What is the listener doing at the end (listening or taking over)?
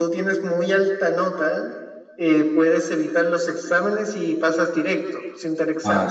taking over